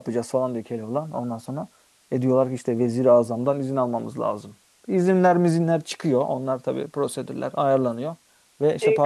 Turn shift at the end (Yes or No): Yes